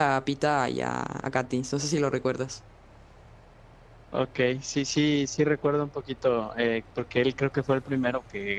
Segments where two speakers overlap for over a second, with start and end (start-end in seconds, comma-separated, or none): none